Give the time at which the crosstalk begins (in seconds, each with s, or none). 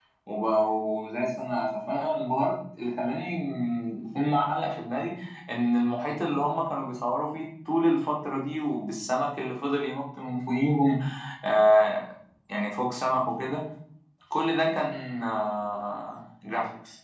none